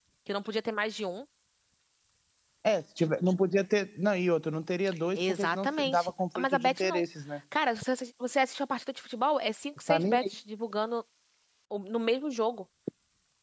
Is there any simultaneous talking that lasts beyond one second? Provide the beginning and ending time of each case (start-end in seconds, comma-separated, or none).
5.1-7.0